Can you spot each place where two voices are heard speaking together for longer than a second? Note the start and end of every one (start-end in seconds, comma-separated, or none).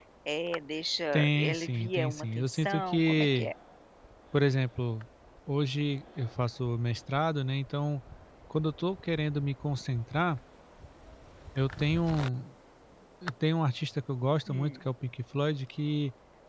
1.1-3.5